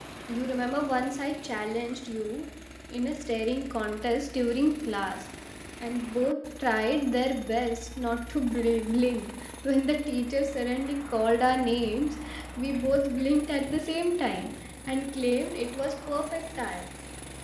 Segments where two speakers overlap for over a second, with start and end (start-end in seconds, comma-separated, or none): none